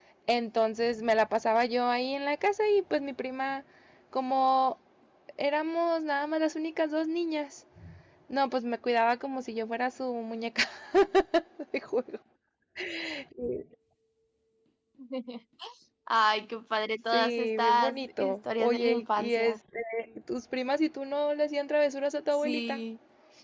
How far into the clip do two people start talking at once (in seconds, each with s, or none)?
17.1 s